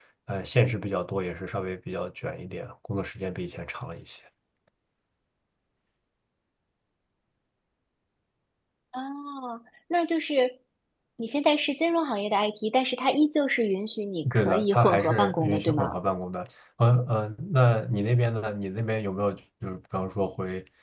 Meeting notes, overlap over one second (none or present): present